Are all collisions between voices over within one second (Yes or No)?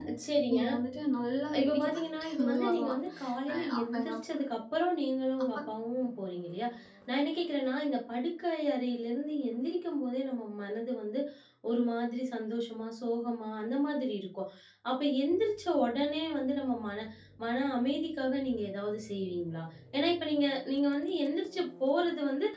No